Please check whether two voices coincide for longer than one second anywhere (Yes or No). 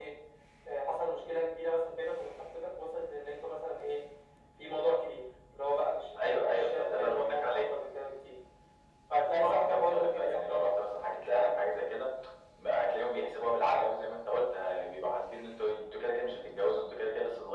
Yes